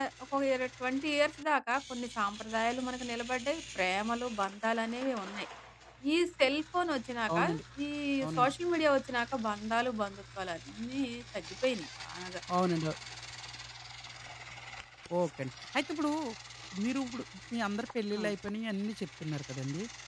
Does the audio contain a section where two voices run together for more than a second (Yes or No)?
No